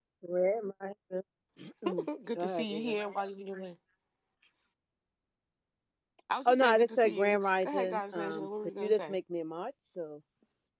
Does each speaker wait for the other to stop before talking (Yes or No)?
No